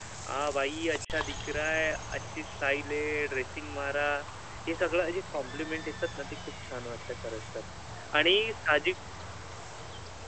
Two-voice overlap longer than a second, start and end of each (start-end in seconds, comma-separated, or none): none